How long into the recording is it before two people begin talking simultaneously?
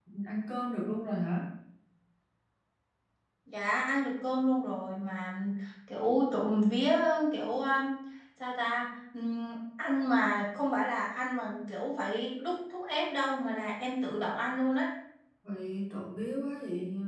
none

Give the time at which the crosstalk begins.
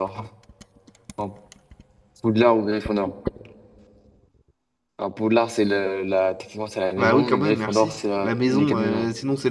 7.0 s

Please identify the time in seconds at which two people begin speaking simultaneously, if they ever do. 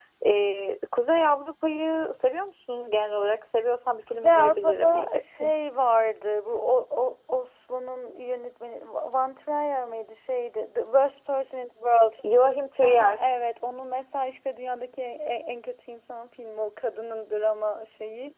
4.1 s

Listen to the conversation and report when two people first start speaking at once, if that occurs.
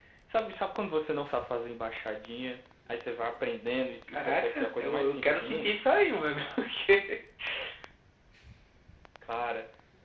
4.1 s

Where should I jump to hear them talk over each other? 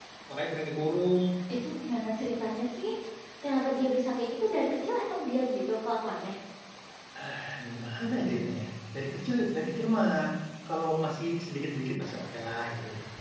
none

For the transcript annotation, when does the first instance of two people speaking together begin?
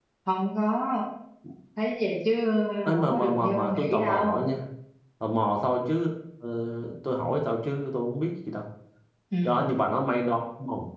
2.8 s

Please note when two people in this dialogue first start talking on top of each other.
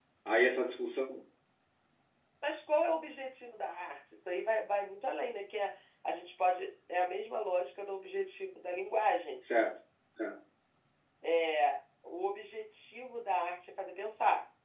none

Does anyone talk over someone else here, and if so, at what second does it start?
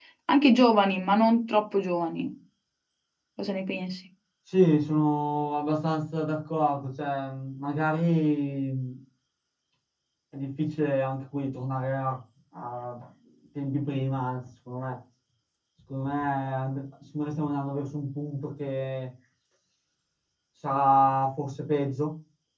none

